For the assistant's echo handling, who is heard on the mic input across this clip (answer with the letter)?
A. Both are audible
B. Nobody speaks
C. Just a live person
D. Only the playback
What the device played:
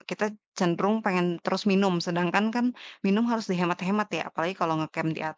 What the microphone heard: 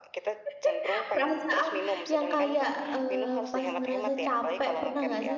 A